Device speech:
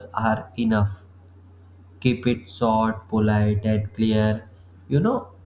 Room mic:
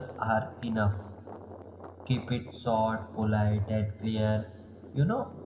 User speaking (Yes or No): No